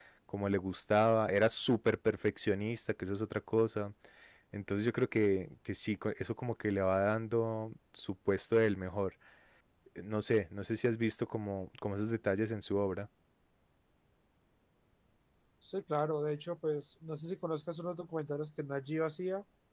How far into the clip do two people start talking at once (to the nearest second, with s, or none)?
none